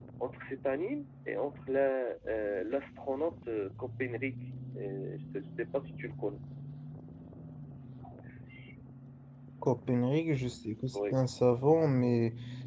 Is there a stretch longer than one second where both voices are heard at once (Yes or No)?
No